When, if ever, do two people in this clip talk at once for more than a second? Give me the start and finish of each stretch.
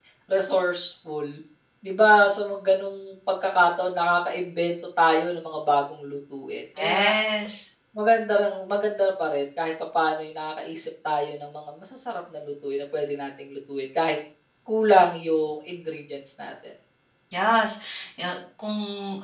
none

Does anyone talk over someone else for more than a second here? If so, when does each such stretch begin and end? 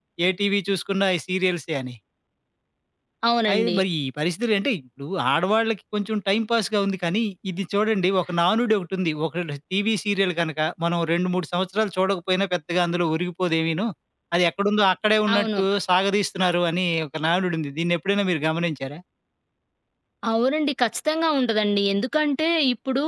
none

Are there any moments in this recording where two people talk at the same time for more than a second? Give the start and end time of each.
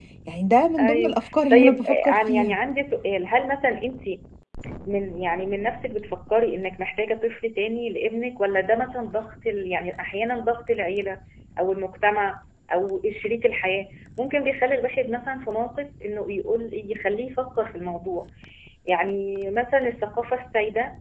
0.8-2.6

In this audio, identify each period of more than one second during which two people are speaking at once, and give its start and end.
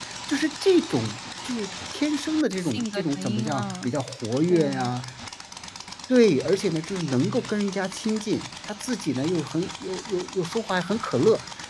2.6-3.9

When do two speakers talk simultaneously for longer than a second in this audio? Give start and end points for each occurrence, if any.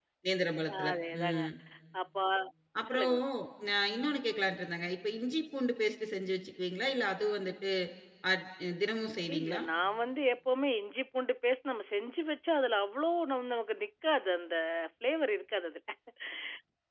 none

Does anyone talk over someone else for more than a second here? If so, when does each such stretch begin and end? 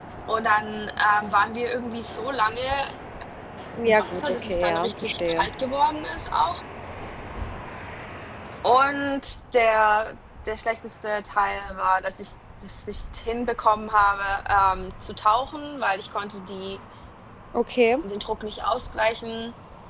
3.8-5.5

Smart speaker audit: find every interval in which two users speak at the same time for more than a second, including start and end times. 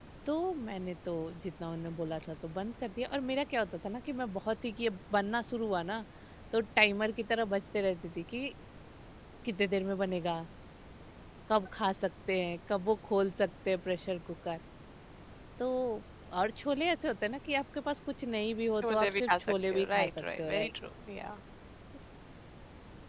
18.8-20.7

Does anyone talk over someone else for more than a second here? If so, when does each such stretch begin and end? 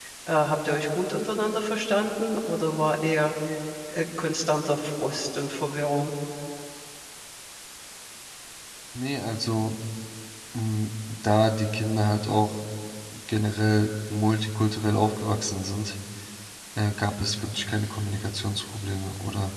none

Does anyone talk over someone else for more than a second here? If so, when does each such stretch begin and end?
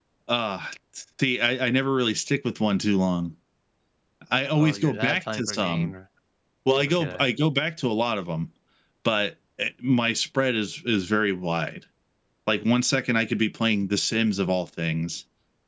4.3-5.9

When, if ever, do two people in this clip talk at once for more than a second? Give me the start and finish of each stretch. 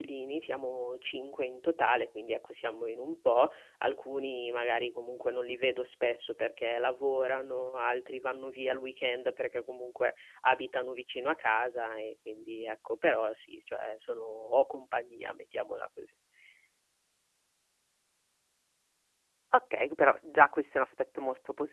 none

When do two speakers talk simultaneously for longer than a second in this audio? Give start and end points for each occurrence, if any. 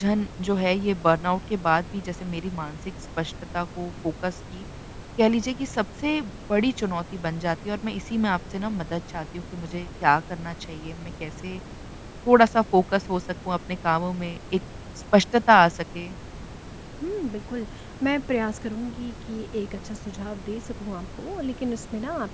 none

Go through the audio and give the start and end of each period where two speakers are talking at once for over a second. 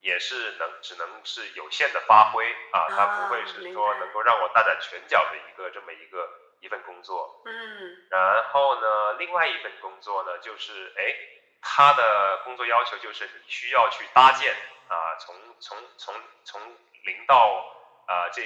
2.9-4.1

